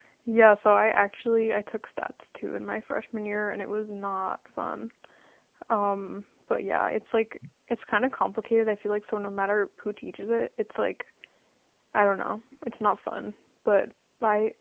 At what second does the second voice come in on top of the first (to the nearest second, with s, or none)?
none